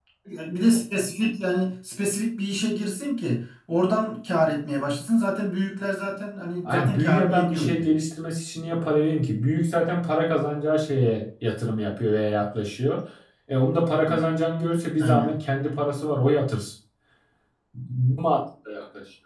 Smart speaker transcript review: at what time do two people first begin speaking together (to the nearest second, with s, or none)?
7 s